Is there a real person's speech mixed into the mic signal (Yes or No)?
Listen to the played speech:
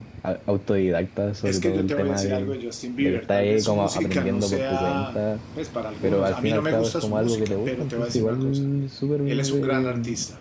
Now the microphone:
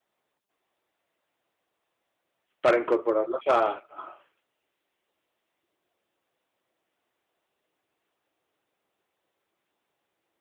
Yes